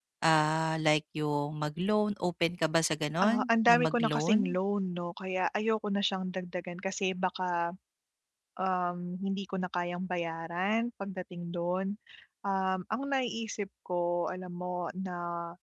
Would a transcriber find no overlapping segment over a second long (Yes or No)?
No